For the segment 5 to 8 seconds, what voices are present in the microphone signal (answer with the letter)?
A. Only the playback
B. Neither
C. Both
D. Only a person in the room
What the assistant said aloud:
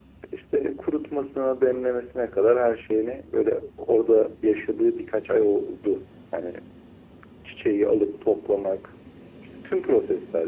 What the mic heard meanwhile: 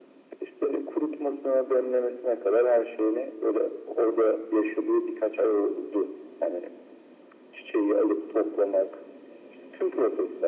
A